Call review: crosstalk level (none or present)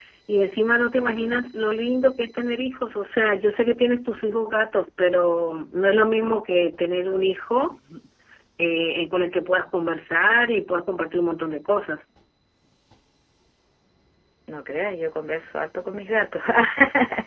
none